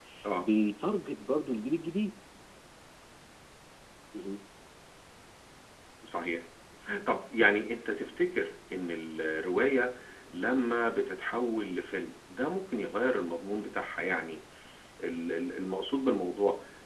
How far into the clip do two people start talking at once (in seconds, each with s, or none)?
none